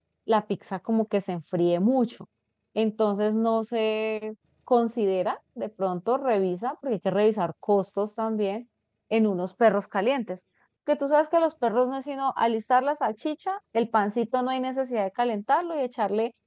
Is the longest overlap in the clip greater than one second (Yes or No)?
No